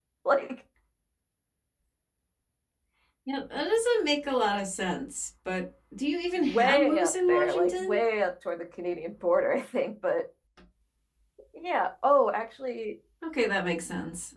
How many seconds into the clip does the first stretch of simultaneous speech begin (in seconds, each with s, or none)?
6.4 s